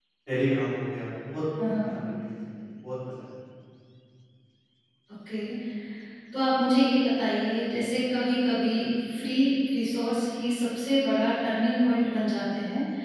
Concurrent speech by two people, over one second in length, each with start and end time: none

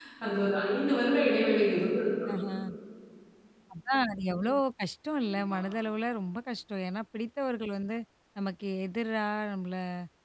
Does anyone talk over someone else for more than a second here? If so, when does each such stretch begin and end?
none

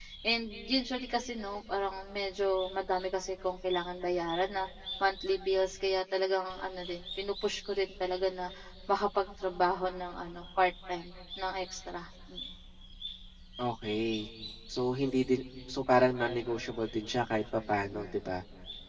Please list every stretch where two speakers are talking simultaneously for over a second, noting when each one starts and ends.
none

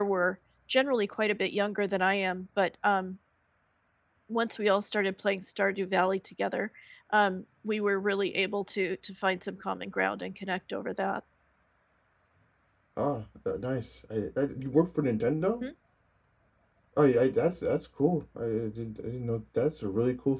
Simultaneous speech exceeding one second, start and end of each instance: none

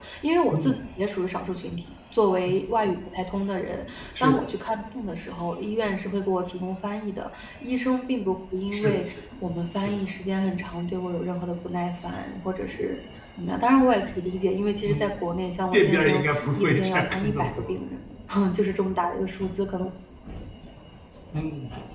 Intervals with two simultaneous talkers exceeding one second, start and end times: 15.7-17.8

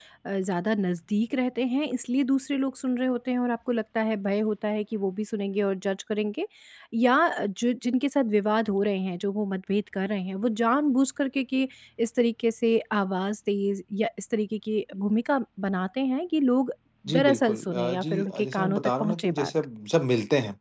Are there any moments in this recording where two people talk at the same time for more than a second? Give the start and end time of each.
17.2-19.5

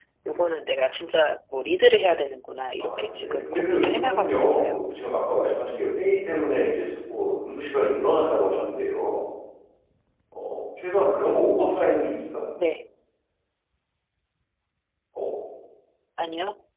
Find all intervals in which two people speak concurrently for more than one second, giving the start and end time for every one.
2.8-4.7

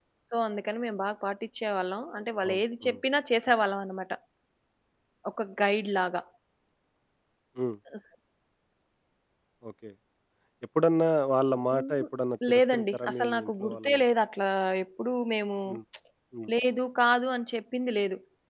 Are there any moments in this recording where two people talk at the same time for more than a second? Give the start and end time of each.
12.5-14.0

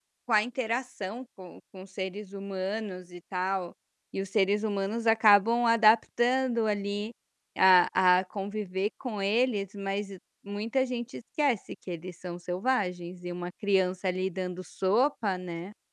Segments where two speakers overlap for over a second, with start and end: none

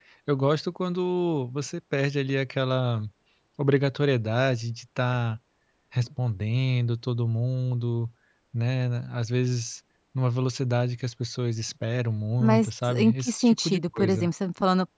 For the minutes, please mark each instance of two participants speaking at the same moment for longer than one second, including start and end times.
12.4-14.3

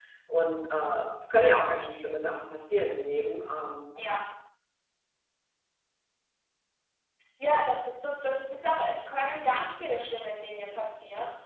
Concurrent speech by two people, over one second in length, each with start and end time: none

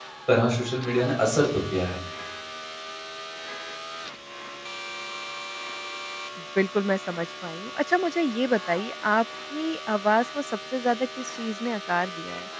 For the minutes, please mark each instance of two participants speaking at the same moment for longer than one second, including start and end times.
none

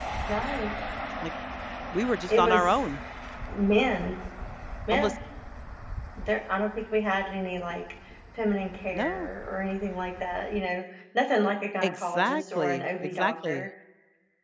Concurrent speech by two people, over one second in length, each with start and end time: 11.8-13.7

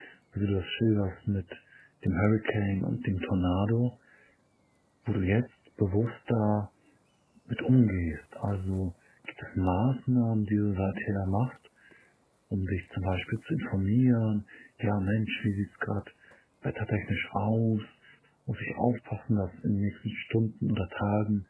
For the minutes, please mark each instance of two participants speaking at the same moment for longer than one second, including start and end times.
none

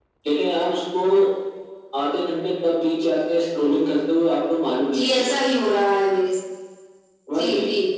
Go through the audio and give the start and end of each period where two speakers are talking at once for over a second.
none

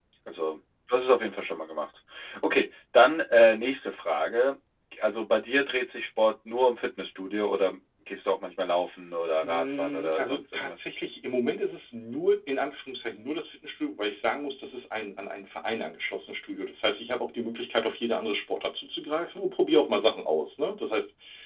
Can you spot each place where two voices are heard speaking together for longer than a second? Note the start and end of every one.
9.4-10.8

